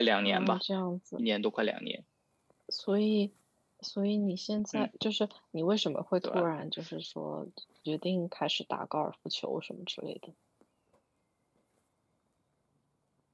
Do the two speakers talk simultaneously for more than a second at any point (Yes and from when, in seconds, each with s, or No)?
No